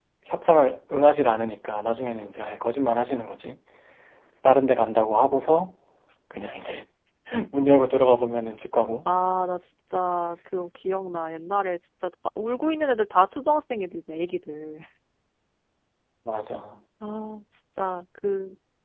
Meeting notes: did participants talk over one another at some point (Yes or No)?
No